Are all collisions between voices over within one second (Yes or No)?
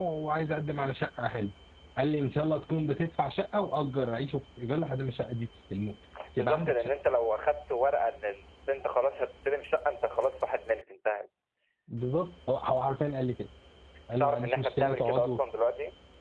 No